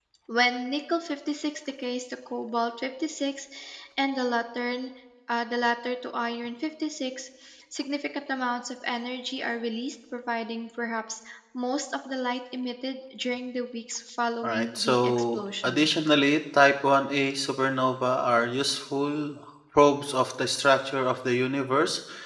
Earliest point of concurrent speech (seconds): 14.4 s

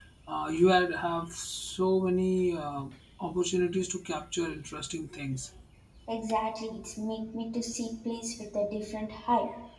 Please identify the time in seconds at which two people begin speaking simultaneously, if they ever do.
none

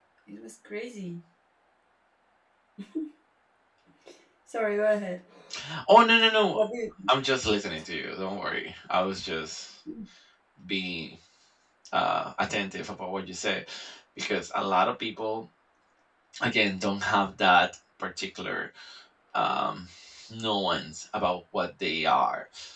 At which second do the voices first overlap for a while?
none

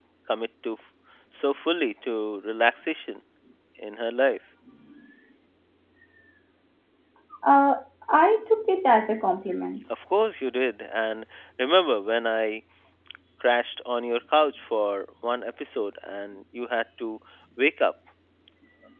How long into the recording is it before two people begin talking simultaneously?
none

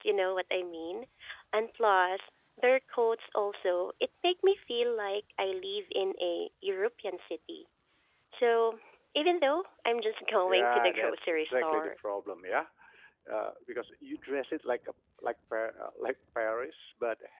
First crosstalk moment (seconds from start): 10.5 s

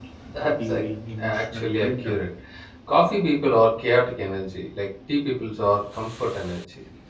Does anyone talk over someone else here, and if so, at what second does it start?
0.6 s

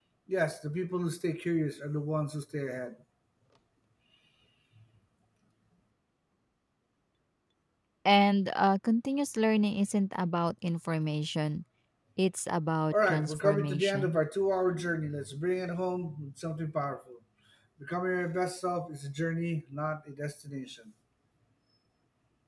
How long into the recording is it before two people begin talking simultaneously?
12.9 s

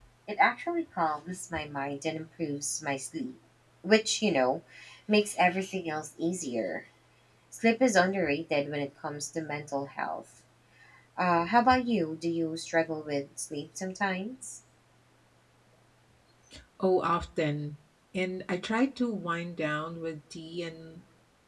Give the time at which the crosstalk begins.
none

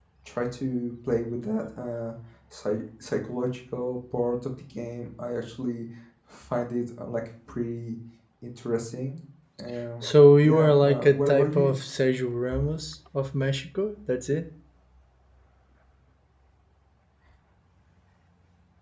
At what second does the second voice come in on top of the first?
10.4 s

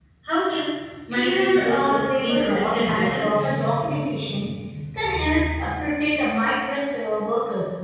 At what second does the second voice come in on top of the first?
1.1 s

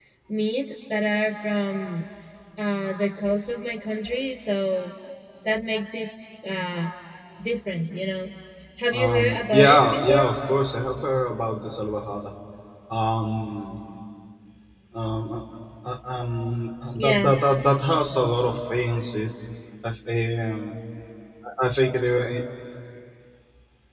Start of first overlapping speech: 8.9 s

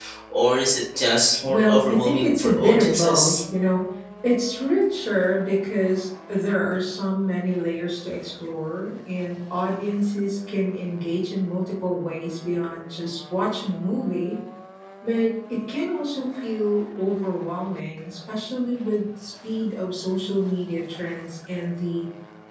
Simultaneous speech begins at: 1.5 s

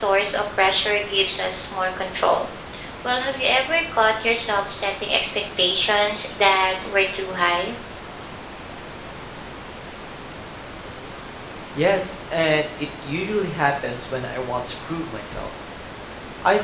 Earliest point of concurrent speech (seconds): none

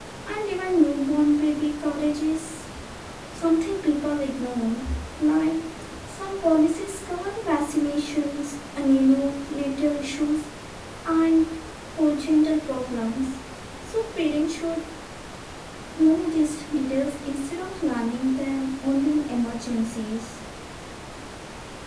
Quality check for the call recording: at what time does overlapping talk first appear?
none

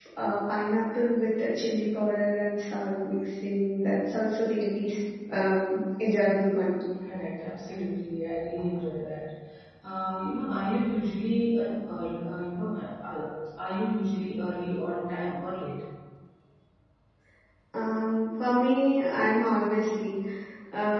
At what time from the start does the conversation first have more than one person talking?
none

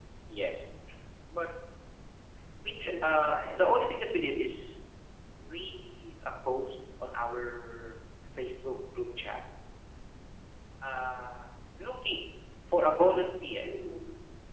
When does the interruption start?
2.7 s

